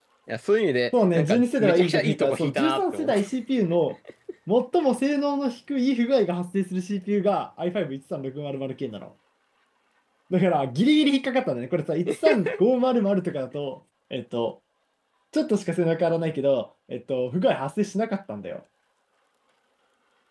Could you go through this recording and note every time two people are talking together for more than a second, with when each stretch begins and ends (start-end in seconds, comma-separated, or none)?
1.1-3.2